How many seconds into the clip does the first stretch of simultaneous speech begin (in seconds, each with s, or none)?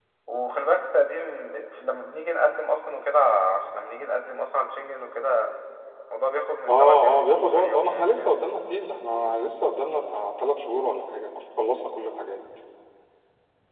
6.7 s